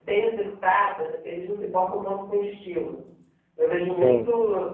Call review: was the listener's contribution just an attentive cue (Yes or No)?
Yes